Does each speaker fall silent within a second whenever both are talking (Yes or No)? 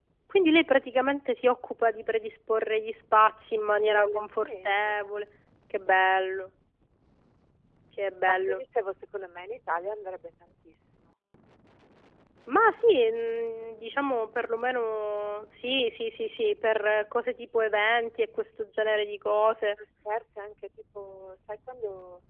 No